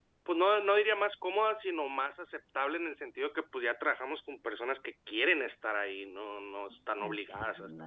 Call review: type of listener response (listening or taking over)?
taking over